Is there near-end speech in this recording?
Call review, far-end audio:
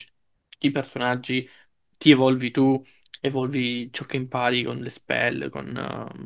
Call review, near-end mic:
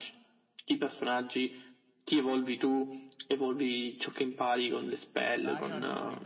Yes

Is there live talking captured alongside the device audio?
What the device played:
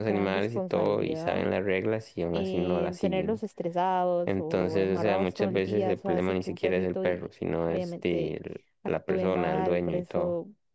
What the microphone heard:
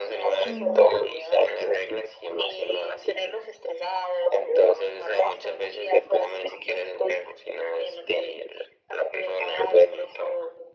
Yes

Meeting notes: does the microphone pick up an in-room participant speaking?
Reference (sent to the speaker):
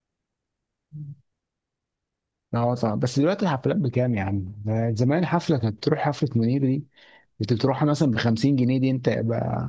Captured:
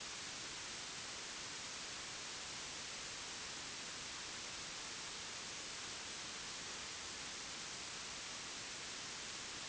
No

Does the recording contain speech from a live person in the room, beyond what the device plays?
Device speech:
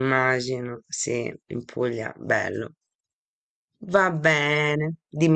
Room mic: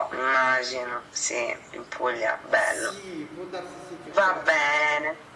Yes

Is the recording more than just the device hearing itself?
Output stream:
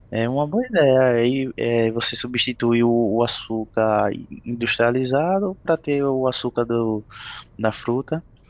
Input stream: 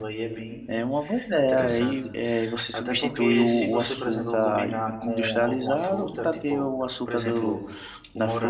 Yes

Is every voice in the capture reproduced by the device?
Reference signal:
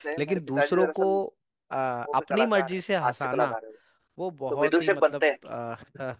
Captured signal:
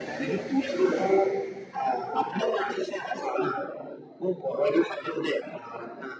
Yes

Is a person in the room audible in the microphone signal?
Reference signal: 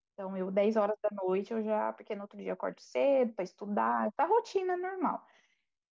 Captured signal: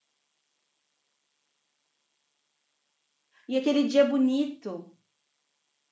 Yes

